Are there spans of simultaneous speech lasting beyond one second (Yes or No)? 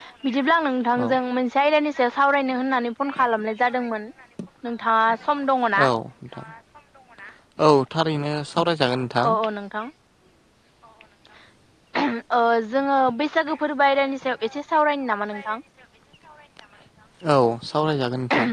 No